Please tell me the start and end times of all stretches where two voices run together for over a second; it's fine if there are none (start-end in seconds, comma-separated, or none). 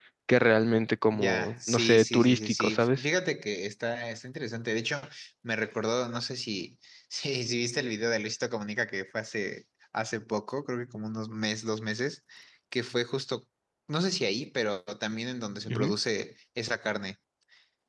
1.1-3.0